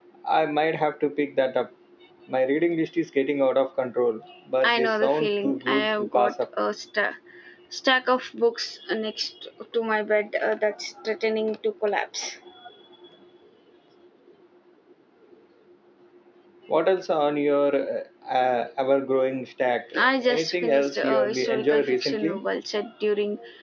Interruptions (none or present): present